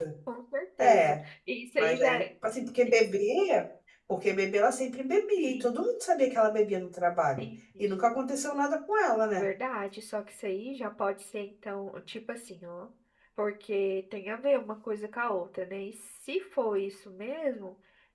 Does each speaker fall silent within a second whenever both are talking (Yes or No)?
Yes